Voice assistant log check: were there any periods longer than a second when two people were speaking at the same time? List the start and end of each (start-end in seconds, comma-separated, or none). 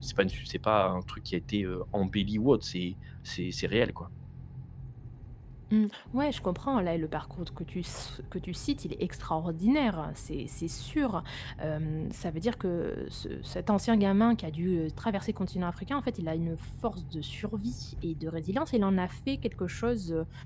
none